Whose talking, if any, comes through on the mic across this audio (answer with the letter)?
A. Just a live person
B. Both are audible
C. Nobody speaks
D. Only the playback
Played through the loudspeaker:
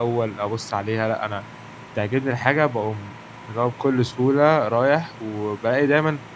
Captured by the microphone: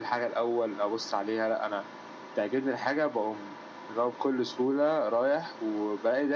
D